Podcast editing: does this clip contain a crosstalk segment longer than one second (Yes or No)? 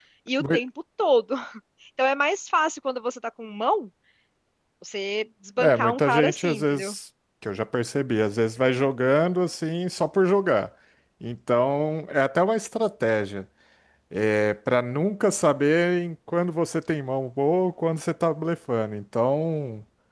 Yes